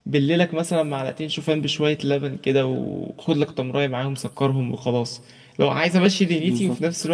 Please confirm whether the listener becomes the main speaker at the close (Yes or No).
No